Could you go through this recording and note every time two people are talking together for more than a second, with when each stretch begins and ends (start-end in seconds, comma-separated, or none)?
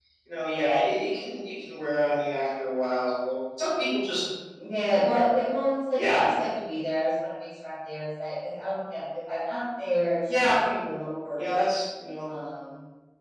none